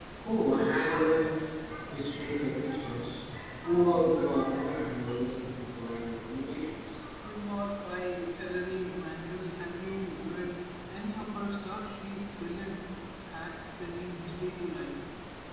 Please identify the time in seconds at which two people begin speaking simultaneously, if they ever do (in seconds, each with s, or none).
none